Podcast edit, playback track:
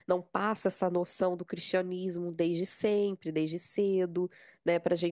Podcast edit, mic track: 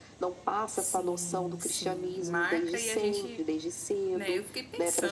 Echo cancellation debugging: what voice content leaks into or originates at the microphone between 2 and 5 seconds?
both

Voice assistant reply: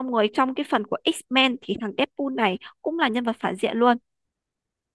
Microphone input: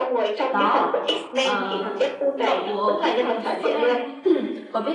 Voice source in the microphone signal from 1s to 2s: both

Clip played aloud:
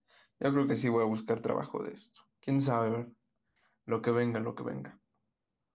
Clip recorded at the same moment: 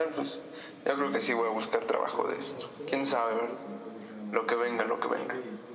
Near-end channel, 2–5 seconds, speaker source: both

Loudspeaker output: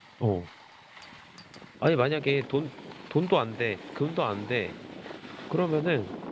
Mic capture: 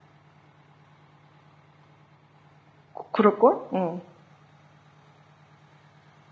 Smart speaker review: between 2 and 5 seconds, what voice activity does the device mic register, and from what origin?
user only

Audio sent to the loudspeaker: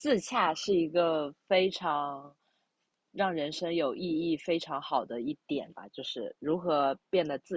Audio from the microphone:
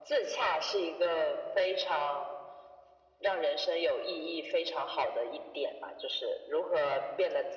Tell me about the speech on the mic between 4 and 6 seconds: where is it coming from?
echo only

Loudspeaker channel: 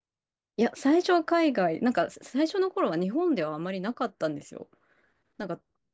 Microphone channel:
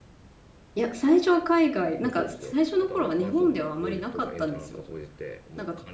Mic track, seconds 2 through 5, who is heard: both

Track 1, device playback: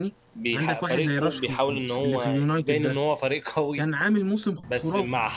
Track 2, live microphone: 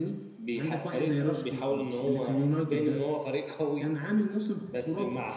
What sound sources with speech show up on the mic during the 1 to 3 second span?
echo only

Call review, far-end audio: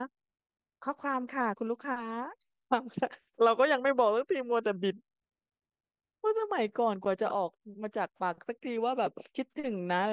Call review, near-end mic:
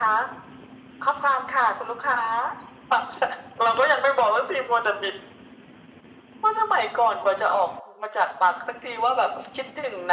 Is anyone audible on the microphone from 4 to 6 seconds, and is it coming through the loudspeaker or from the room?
echo only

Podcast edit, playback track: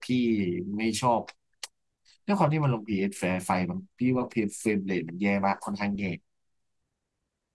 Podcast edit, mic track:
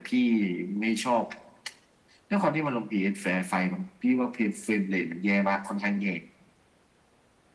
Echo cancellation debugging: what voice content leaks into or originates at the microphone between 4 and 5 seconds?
echo only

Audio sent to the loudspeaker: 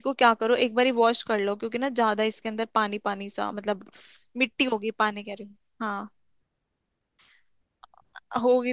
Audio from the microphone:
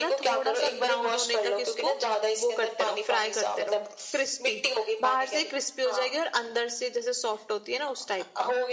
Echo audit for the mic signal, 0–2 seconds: both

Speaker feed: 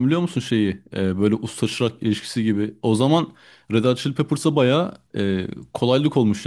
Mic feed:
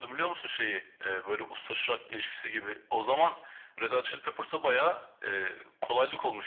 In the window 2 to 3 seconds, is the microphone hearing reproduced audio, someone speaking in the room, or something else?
echo only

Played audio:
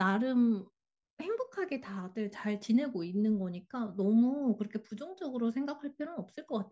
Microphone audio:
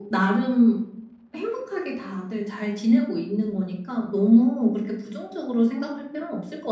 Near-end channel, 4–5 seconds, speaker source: echo only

